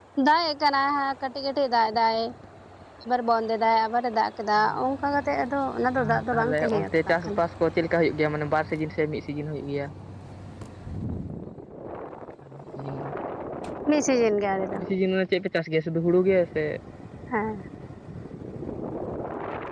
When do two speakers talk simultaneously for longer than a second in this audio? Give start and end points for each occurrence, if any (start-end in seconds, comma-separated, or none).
6.1-7.4